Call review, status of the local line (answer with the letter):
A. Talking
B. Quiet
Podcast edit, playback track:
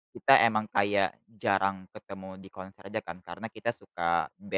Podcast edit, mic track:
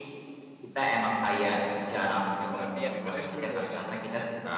A